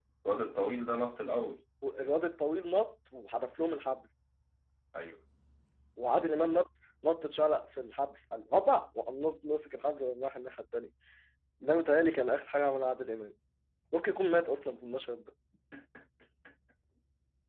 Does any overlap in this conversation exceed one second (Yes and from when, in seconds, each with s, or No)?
No